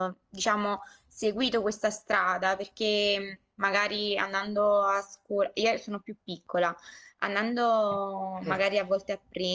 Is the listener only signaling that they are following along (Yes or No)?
Yes